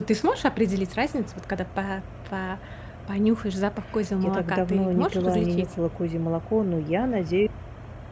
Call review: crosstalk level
present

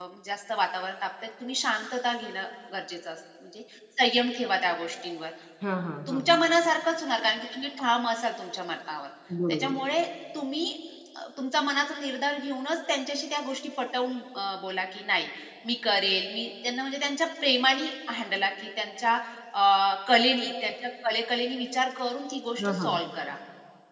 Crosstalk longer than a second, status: none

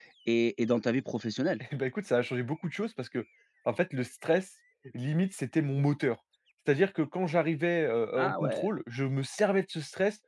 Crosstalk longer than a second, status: none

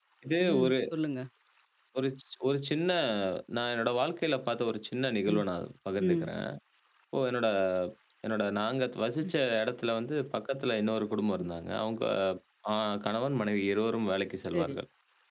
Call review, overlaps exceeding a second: none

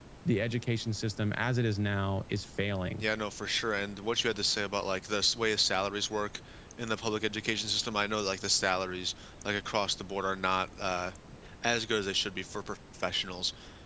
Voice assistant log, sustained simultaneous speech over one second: none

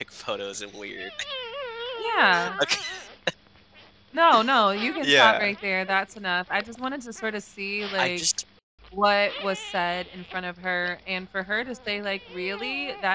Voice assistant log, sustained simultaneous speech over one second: none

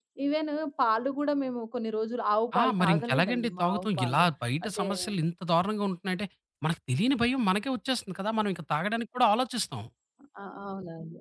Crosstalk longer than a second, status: present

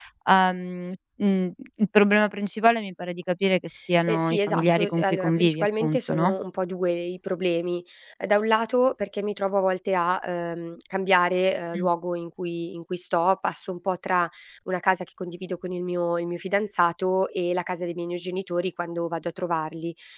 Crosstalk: present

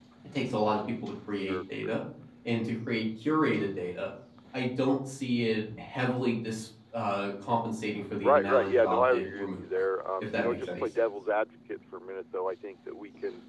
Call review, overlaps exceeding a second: present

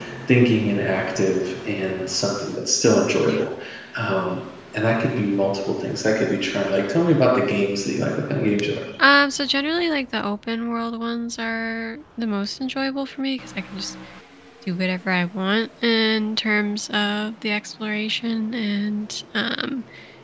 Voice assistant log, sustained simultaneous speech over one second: none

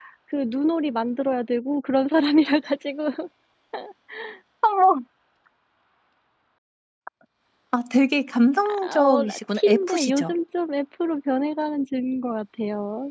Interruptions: present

